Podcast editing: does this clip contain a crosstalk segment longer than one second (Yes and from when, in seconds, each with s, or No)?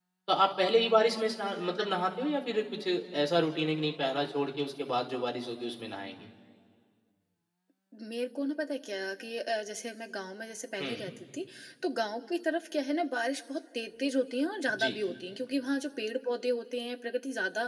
No